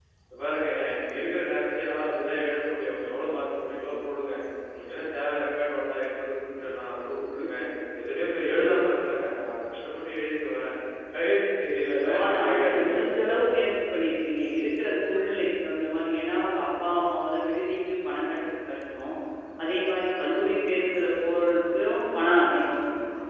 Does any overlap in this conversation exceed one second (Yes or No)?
Yes